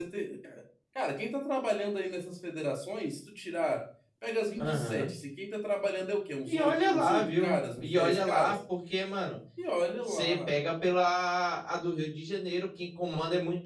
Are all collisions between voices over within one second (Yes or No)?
No